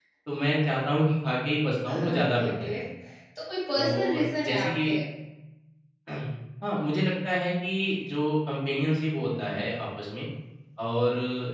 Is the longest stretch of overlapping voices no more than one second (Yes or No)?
No